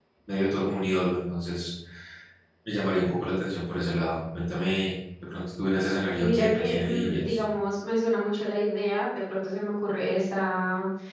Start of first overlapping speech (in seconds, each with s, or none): 6.2 s